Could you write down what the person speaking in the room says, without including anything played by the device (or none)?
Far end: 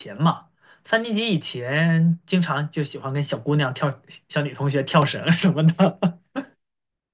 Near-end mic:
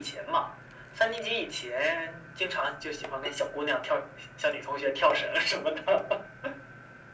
none